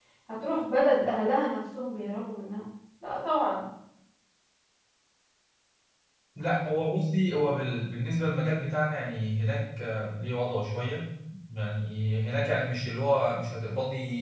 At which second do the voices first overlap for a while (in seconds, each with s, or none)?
none